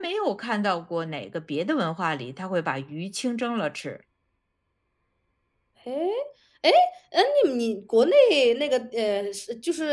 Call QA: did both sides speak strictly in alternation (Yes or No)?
Yes